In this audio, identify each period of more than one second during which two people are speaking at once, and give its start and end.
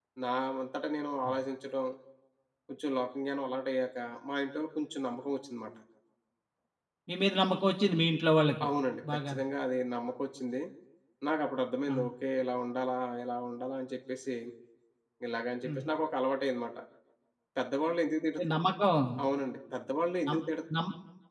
none

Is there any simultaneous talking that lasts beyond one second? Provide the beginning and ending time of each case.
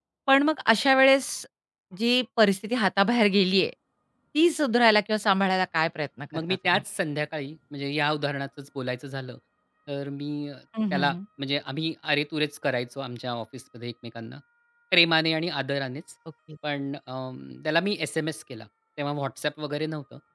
none

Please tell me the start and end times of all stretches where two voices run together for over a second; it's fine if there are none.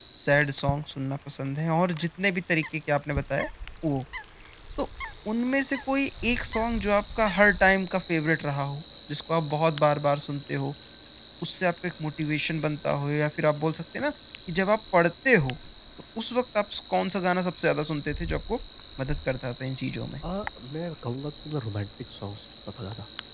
none

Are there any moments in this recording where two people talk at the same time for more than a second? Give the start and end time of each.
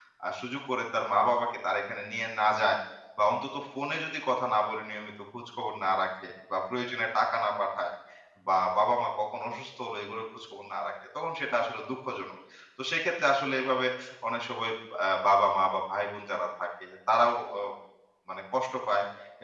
none

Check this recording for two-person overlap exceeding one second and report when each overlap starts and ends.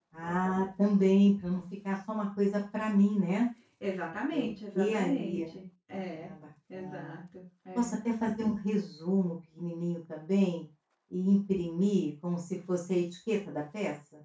4.3-5.5

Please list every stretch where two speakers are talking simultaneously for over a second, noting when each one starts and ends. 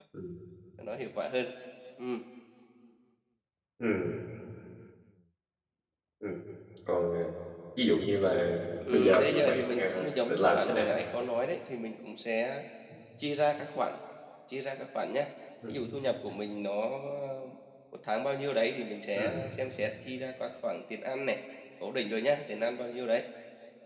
8.9-10.9

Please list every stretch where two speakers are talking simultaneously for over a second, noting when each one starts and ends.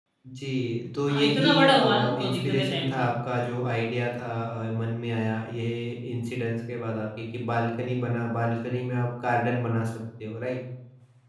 1.1-3.1

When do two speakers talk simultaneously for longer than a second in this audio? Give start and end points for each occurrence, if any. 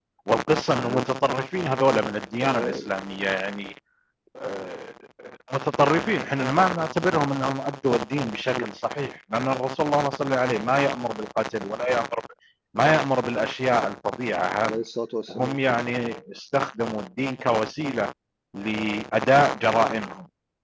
none

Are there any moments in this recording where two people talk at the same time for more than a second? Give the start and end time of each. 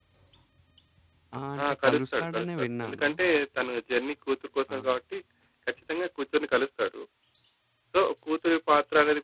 1.8-3.1

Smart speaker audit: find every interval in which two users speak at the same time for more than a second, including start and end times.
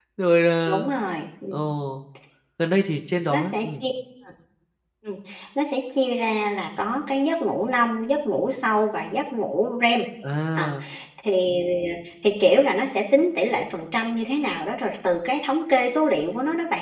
none

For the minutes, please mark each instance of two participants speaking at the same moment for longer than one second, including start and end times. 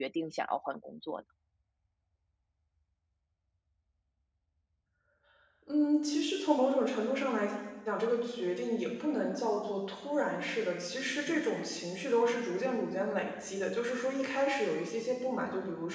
none

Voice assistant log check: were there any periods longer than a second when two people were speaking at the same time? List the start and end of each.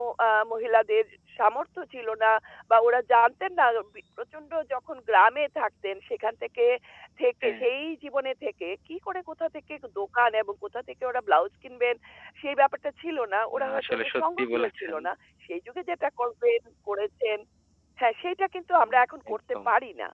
13.6-15.0

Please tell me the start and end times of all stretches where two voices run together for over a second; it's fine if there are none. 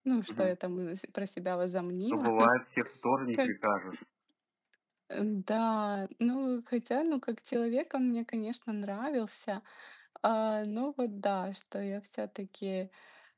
none

